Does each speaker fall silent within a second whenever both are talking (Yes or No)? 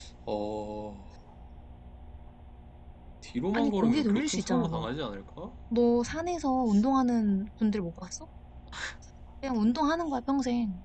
No